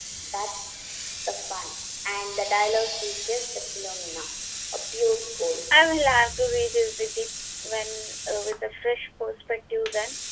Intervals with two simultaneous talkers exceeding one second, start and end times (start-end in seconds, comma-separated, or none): none